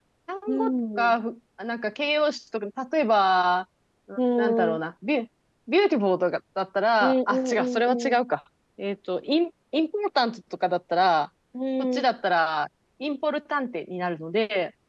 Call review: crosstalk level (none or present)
present